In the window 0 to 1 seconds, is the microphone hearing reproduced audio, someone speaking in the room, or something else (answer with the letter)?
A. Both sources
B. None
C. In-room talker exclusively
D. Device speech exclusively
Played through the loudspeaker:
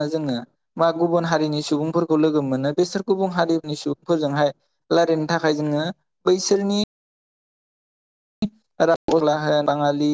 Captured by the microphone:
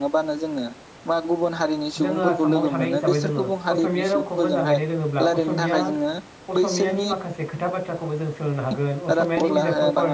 D